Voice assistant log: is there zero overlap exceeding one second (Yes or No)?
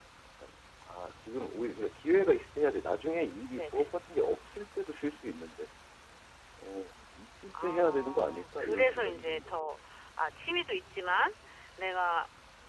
No